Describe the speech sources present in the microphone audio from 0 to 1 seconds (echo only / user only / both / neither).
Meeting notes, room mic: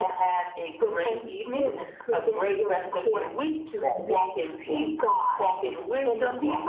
echo only